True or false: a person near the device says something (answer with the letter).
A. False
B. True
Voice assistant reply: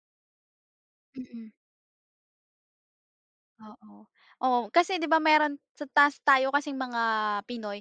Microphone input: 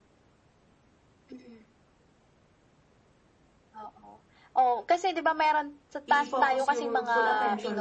B